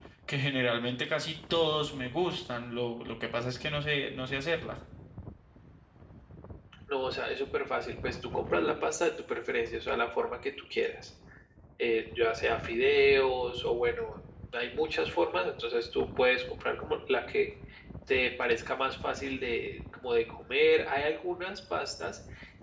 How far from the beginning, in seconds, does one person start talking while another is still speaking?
none

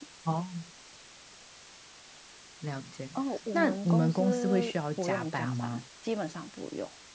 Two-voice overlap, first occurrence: 3.5 s

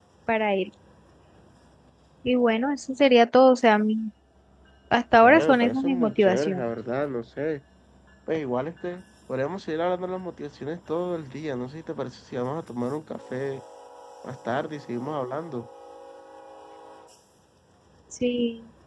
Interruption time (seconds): 5.2 s

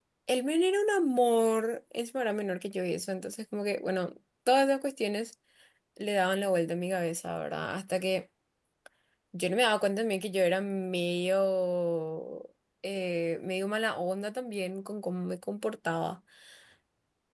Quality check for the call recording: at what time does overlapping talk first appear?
none

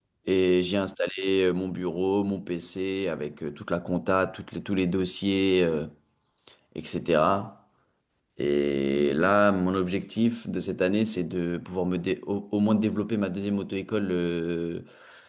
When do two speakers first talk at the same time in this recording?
none

